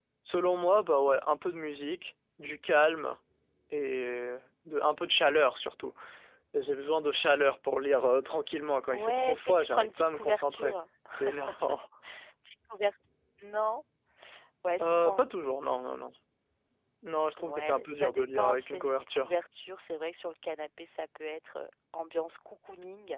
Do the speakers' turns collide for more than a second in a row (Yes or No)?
Yes